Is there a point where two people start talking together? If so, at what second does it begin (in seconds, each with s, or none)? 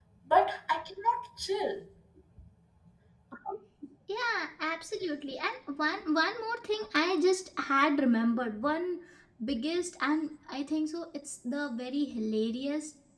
none